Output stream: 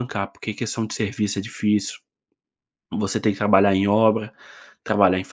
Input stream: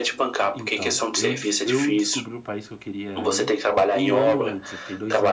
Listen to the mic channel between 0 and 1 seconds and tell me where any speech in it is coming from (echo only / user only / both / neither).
both